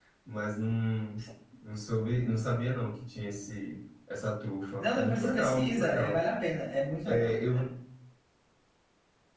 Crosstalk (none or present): present